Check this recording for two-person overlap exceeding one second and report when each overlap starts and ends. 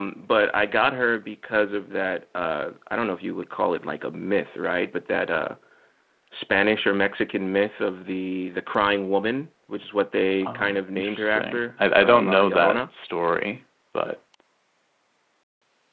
10.4-12.8

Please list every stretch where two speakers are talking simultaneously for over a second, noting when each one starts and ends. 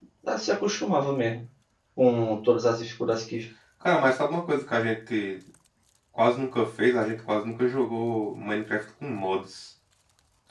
none

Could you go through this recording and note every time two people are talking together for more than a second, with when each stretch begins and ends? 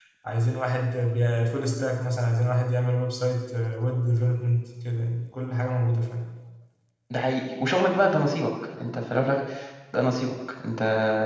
none

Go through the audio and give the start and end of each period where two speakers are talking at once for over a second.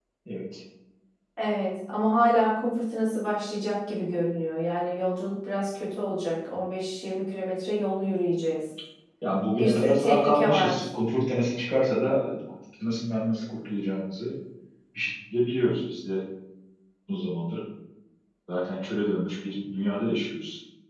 9.6-10.8

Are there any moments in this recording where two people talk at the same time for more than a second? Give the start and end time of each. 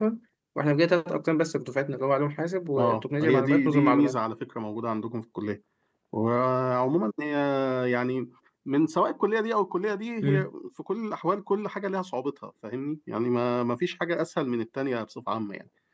2.8-4.2

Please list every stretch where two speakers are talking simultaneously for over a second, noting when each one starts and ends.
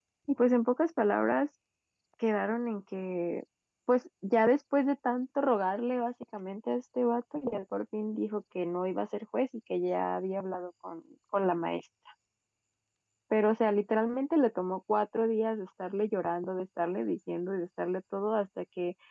none

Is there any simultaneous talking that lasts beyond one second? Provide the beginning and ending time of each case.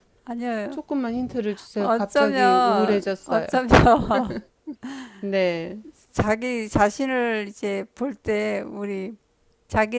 1.8-3.5

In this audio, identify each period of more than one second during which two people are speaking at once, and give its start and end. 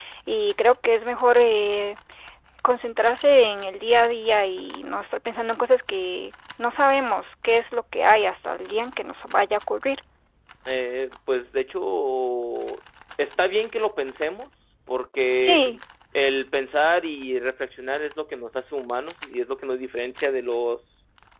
none

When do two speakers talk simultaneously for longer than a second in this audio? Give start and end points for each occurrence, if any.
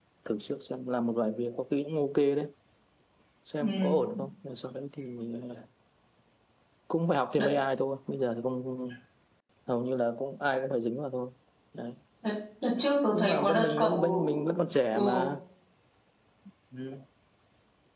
13.1-14.5

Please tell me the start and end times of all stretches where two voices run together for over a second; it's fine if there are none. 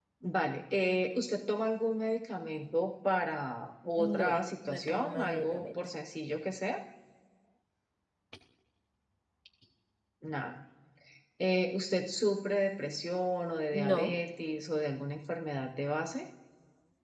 4.0-5.8

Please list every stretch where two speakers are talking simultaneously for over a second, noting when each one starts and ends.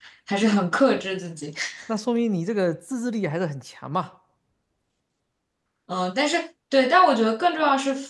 none

